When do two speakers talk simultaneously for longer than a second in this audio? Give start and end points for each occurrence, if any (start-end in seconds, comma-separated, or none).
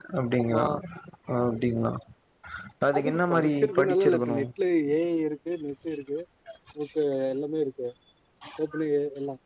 3.0-4.4